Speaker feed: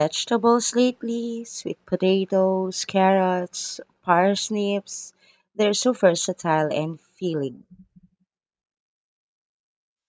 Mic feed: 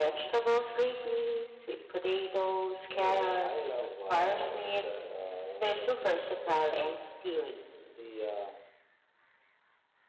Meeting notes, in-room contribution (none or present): present